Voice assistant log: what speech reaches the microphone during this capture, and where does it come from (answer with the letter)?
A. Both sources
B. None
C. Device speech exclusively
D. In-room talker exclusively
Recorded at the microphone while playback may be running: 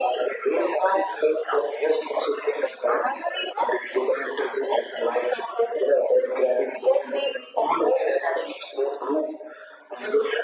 C